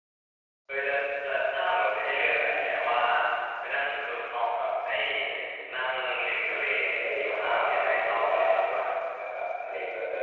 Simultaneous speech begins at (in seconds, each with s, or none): 7.2 s